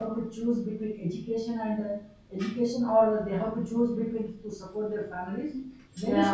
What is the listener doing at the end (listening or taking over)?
listening